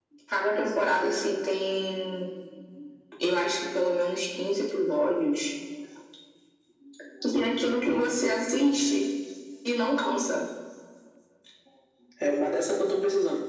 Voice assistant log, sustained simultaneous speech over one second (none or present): none